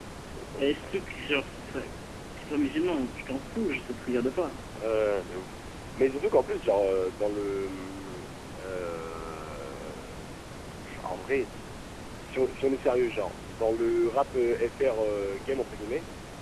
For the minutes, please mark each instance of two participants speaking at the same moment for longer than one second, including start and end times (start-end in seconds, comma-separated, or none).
none